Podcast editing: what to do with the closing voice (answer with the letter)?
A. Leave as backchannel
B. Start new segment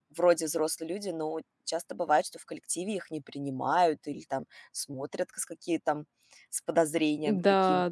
B